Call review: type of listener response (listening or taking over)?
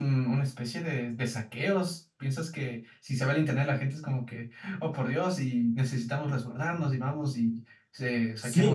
taking over